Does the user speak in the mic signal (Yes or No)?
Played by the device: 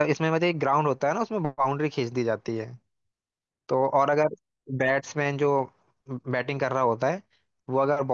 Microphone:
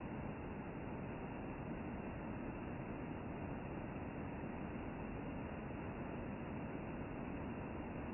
No